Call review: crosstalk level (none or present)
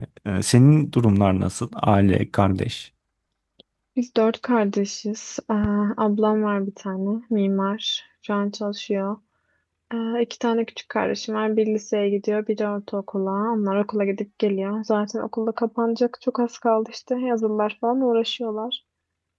none